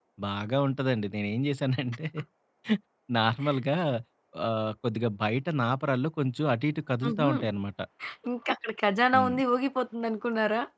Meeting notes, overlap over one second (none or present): none